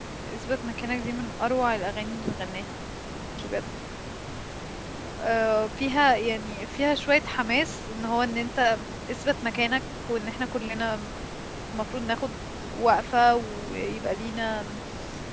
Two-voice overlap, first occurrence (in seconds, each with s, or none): none